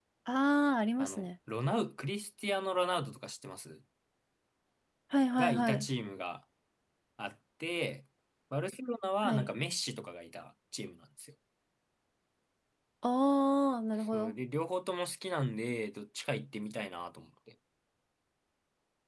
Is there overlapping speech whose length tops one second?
No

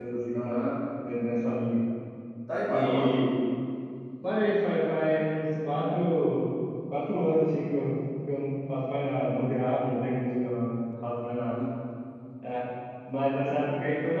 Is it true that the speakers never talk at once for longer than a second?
Yes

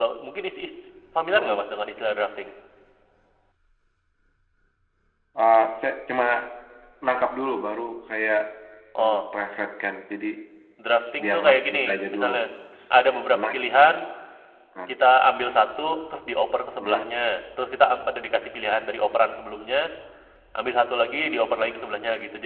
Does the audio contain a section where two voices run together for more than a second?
Yes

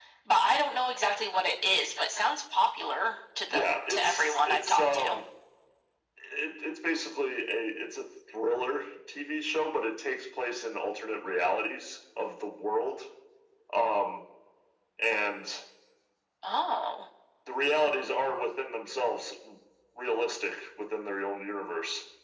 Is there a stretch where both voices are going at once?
Yes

